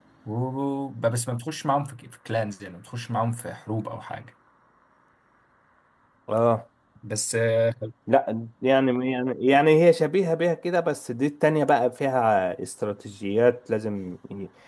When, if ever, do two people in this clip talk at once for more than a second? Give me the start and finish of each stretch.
none

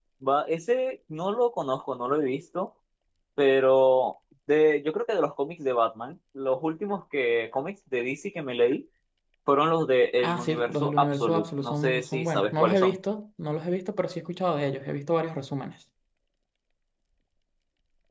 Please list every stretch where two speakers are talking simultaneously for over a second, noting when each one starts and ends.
10.2-13.0

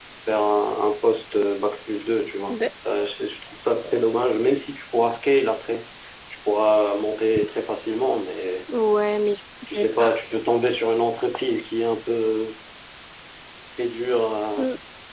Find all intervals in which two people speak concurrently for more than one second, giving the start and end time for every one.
none

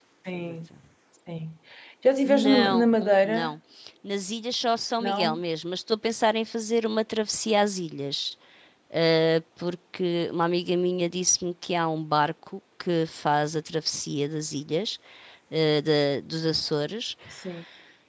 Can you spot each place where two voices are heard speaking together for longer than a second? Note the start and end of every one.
2.2-3.5

